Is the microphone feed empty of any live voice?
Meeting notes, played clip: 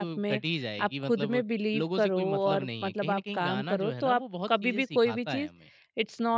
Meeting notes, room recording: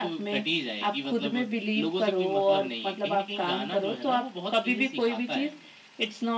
Yes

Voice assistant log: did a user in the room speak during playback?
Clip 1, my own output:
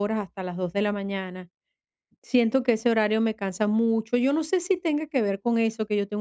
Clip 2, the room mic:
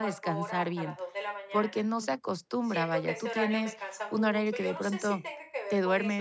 Yes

